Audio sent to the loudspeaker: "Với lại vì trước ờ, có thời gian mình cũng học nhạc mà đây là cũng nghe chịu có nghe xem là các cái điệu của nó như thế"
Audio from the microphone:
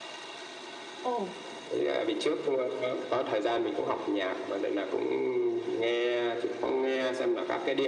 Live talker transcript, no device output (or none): ồ